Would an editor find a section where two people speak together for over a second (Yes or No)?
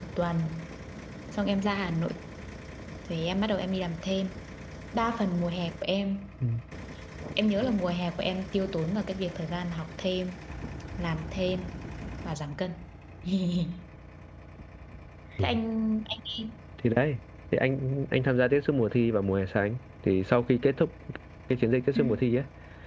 No